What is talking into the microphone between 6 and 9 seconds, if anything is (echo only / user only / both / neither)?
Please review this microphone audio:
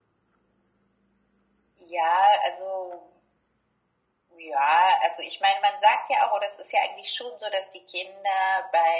echo only